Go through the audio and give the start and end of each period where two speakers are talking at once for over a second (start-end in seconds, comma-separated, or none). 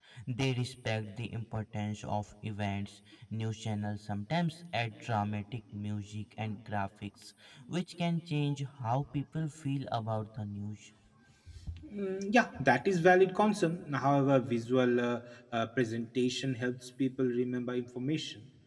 none